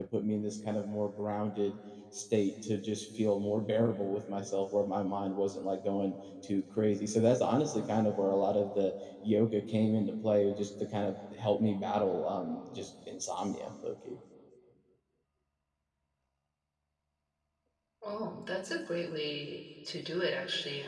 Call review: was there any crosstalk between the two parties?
No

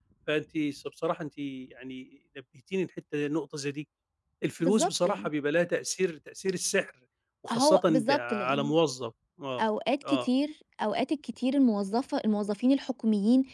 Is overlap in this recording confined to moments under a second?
No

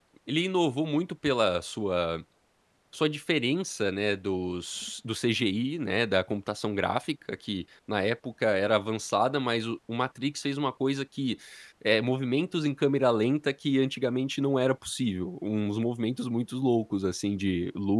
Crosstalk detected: No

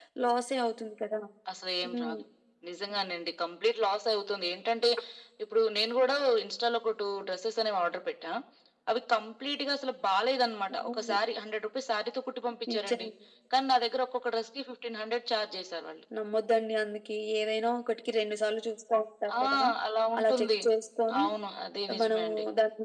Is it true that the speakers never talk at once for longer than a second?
Yes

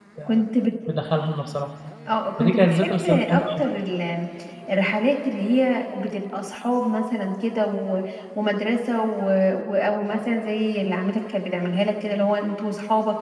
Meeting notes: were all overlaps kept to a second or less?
No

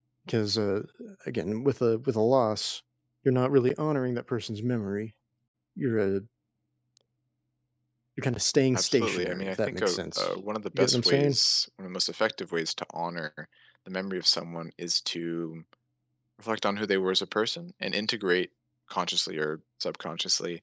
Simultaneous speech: Yes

